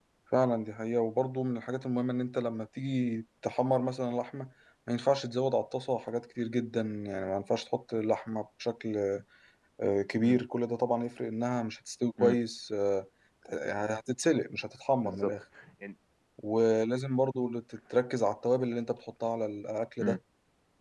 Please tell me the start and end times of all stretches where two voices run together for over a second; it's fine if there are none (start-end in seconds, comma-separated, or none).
none